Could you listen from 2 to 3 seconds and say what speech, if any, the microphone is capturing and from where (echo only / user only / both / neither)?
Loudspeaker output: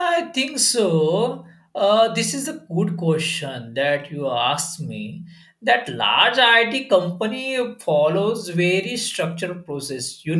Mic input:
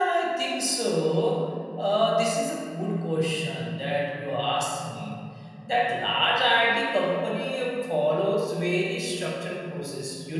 echo only